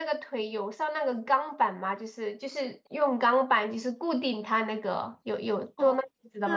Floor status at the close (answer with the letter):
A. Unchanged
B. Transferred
B